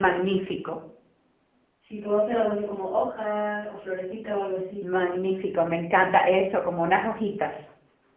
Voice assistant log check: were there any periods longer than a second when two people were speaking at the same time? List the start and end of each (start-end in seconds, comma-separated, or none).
none